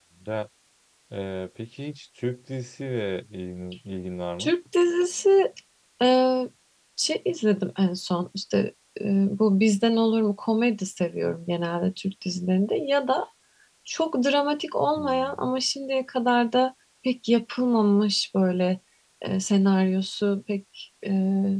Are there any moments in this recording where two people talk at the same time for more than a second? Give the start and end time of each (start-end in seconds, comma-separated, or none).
none